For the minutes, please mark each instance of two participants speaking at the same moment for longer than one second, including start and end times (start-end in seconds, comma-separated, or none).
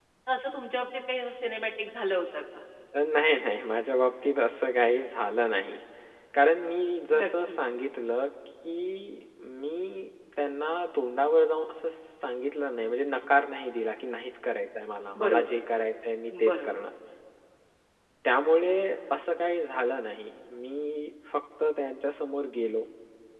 none